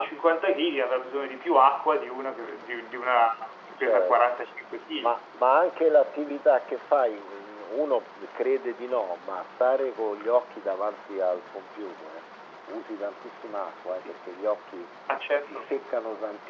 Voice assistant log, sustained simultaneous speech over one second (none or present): none